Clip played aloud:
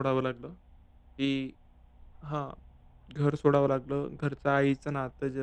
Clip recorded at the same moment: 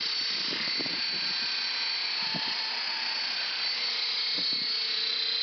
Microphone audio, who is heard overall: neither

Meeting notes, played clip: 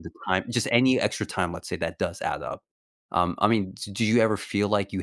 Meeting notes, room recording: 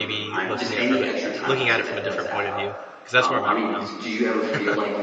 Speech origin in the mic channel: both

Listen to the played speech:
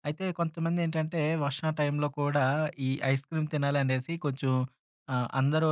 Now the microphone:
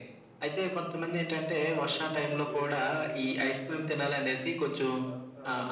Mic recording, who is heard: both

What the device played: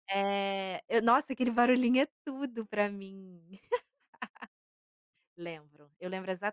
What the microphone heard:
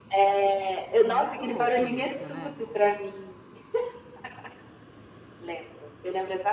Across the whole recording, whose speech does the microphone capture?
both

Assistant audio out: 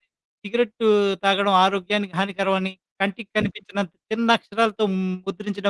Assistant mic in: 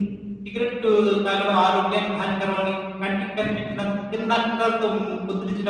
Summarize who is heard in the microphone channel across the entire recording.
echo only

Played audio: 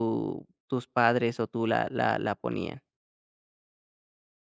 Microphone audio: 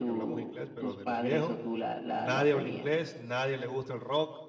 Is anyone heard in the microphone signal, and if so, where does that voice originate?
both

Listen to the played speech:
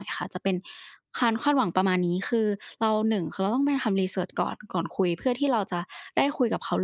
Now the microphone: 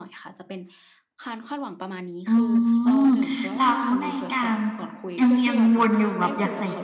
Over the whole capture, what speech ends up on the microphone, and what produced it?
both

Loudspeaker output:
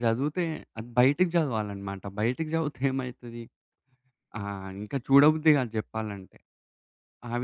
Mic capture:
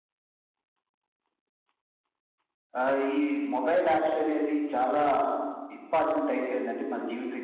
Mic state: user only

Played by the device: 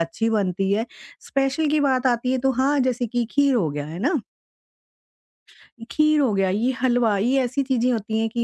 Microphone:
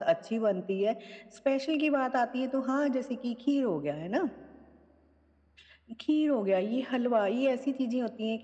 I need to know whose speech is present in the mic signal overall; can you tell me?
echo only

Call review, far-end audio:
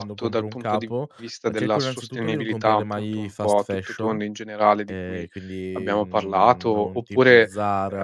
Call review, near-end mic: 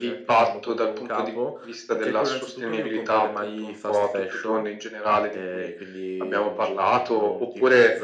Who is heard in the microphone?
echo only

